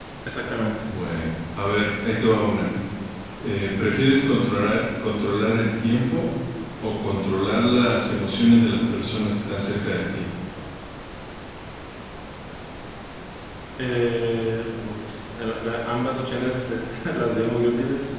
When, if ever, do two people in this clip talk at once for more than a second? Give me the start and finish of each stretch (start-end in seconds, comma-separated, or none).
none